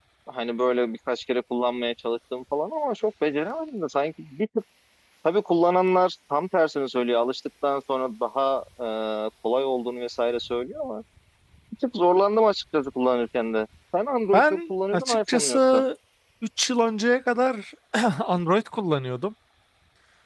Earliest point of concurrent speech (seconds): 14 s

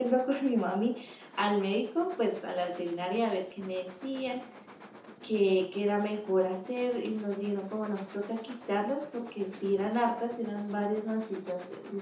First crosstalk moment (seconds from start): none

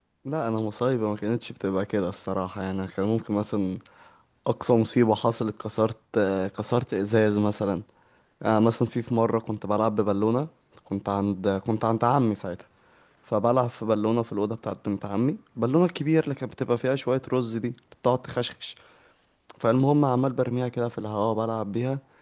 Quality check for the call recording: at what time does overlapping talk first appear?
none

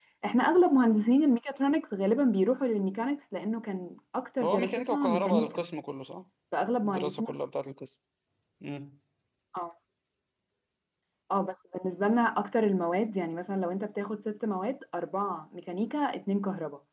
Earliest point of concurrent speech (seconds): 4 s

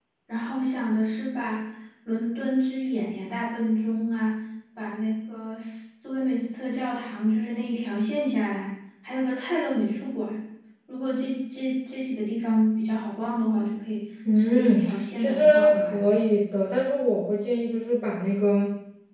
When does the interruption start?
14 s

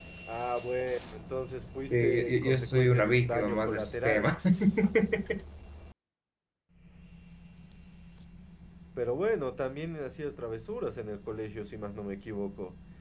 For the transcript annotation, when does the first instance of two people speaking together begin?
2 s

